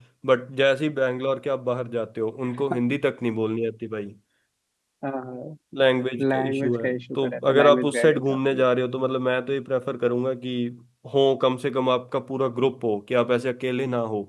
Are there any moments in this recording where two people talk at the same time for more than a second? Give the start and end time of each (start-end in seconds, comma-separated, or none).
6.2-8.6